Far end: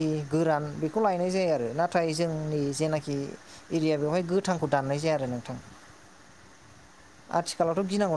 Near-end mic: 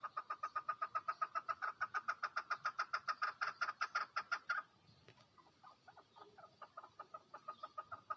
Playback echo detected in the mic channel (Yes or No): No